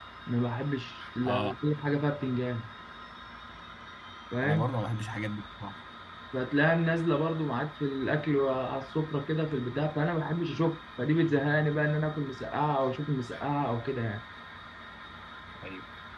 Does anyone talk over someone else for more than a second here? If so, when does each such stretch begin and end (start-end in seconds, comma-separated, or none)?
none